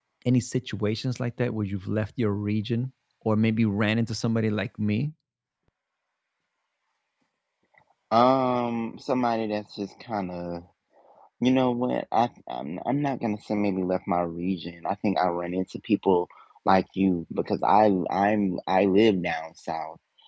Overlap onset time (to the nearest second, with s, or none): none